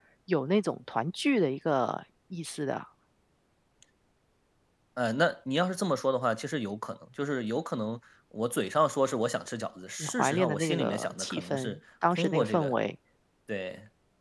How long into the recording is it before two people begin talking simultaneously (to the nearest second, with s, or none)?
10 s